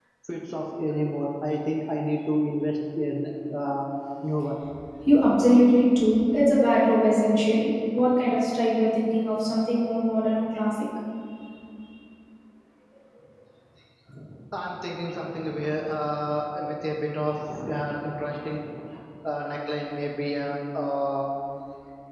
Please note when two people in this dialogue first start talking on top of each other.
none

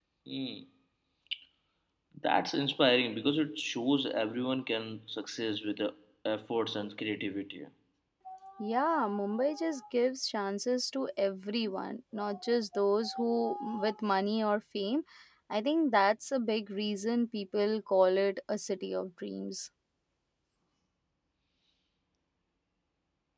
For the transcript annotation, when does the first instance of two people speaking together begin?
none

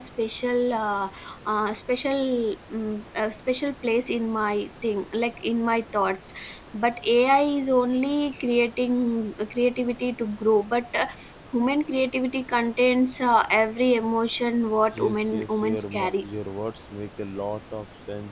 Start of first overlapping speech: 15 s

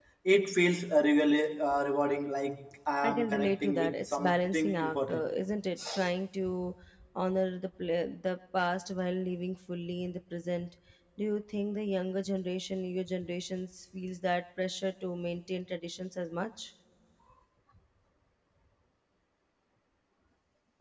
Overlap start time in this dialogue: 3 s

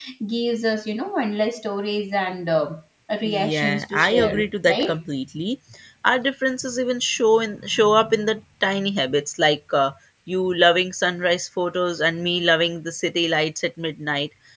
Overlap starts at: 3 s

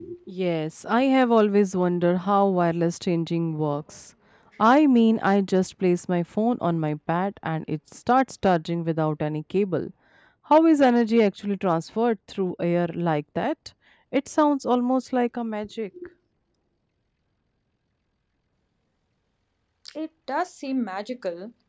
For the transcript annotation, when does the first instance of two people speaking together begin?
none

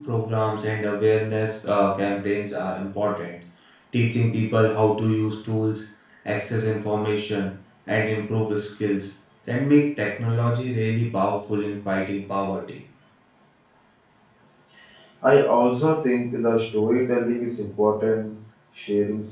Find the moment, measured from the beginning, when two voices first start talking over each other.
none

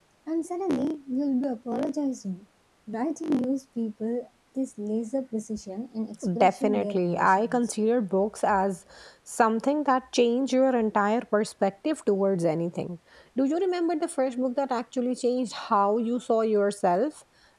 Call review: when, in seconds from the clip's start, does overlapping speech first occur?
6 s

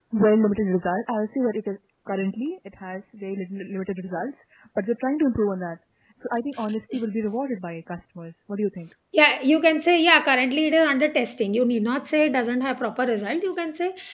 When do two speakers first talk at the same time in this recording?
none

